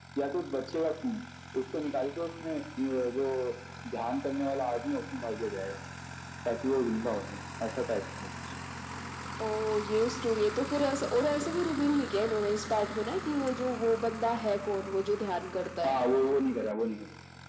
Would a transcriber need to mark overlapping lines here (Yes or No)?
No